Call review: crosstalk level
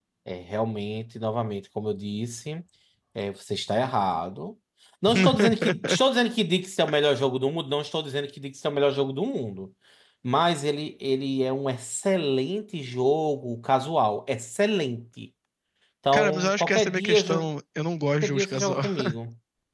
present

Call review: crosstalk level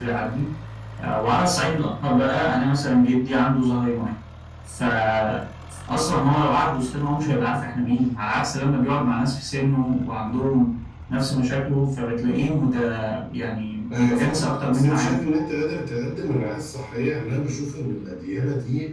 present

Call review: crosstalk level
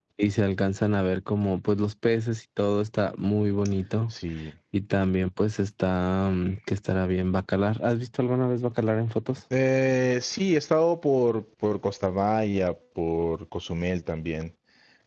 none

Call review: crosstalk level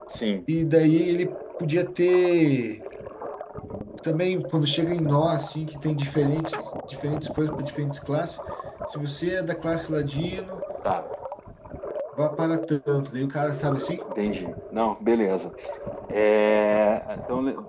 none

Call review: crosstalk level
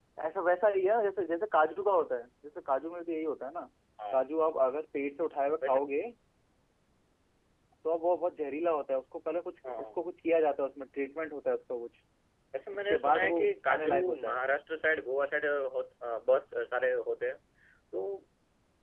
present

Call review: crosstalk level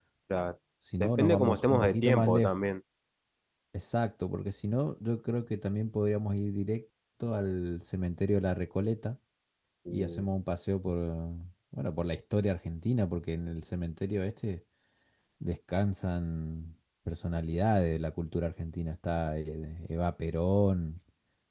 present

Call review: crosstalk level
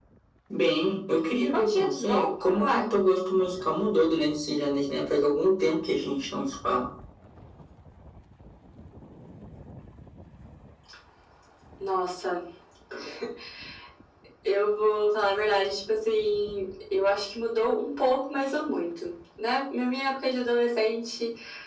present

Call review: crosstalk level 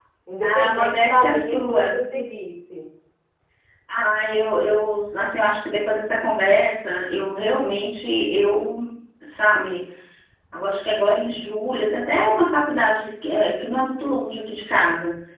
present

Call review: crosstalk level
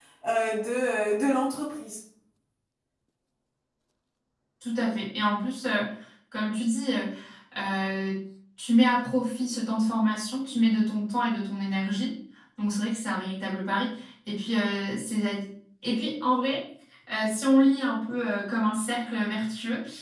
none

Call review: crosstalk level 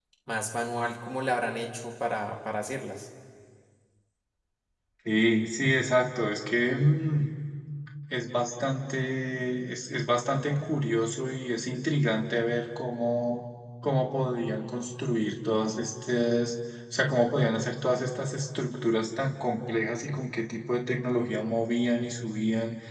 none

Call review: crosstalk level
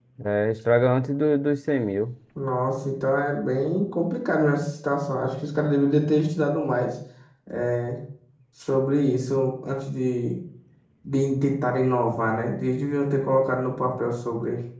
none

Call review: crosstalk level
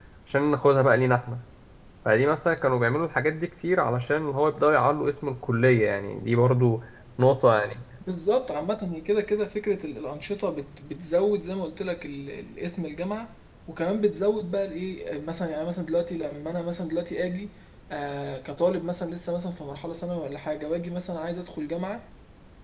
none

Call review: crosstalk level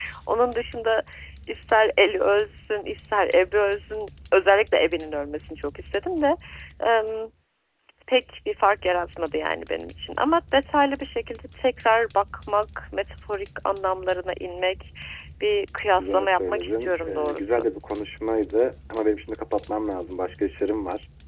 present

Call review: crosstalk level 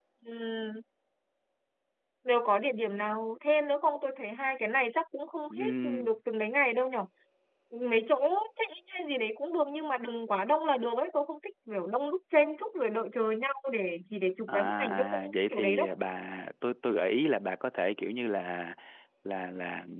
present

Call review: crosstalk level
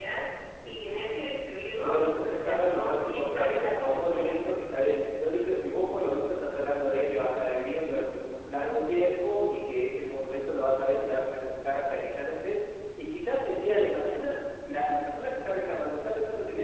present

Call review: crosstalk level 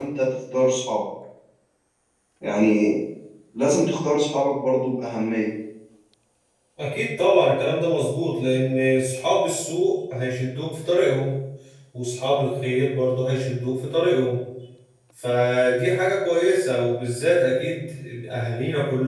none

